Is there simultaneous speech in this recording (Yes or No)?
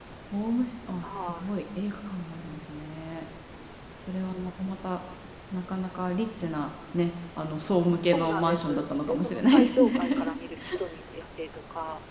Yes